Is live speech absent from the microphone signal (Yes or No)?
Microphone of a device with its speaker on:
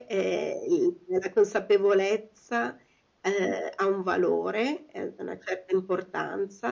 Yes